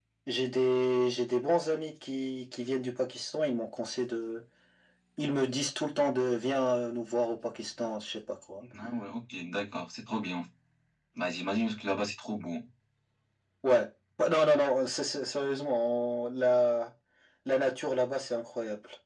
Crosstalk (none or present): none